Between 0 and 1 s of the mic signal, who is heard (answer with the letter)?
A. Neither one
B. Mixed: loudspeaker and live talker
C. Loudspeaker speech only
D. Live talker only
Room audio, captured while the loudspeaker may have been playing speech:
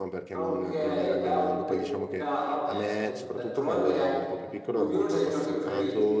B